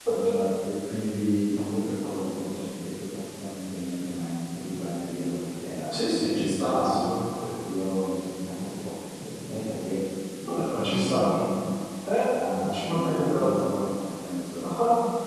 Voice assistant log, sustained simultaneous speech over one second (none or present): present